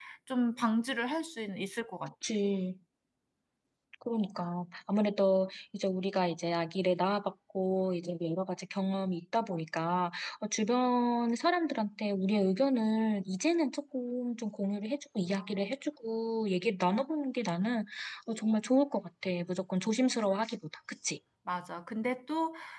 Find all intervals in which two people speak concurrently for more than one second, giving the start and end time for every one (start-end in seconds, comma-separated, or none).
none